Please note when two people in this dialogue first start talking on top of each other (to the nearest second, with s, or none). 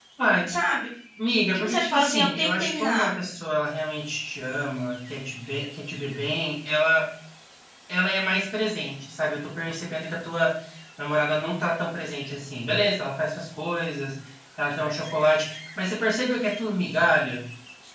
2 s